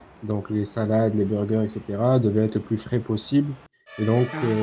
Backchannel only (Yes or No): Yes